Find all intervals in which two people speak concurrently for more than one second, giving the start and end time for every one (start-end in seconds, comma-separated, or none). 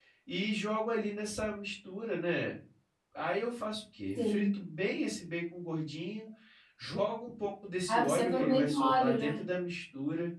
7.9-9.4